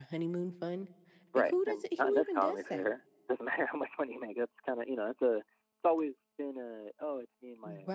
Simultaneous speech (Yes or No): Yes